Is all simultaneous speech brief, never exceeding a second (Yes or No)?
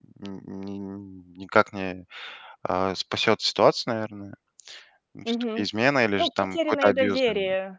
No